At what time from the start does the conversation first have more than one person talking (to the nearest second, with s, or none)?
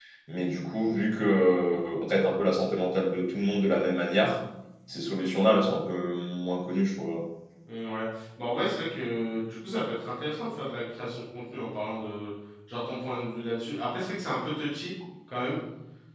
none